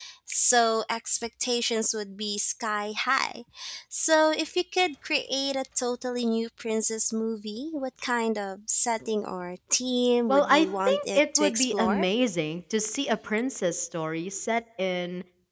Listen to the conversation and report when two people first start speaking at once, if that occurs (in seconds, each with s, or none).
10.3 s